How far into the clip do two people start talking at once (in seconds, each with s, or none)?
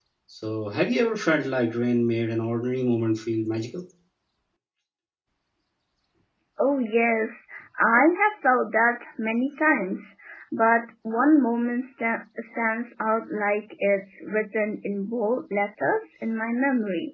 none